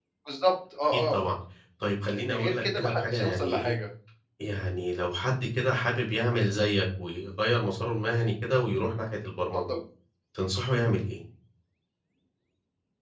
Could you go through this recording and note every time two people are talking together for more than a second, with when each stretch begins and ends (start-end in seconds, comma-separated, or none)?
2.2-3.7